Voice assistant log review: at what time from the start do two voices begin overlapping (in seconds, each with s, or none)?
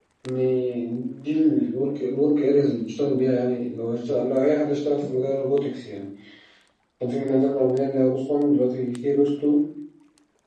none